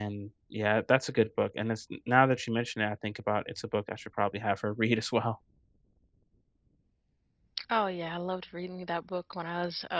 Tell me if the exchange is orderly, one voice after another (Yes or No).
Yes